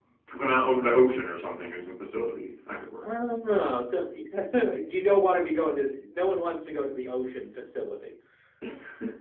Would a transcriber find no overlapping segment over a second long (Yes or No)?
Yes